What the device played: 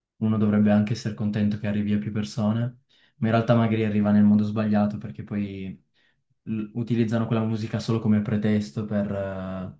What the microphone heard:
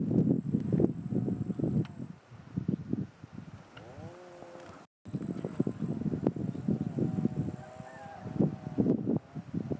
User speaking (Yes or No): No